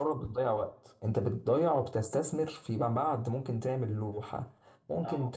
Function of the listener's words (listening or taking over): listening